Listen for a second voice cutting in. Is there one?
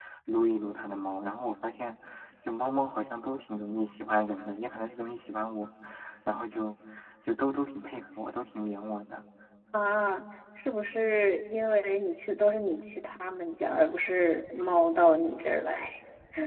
No

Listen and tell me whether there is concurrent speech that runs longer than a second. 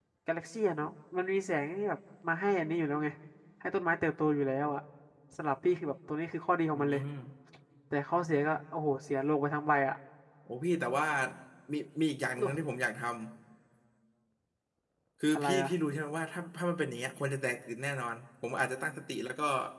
No

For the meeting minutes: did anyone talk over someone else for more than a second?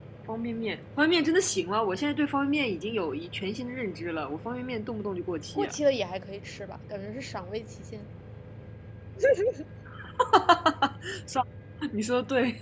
No

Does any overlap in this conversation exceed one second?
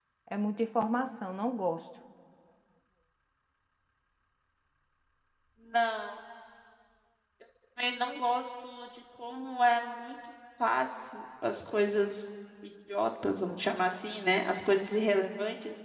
No

